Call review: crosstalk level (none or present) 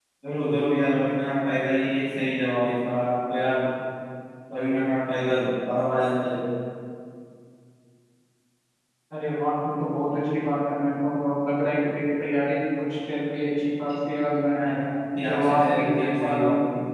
present